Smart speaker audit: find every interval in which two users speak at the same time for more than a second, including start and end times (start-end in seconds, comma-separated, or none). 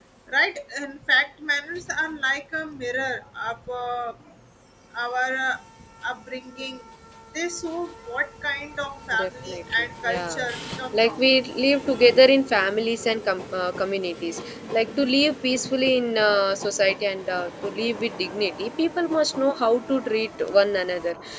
9.1-10.4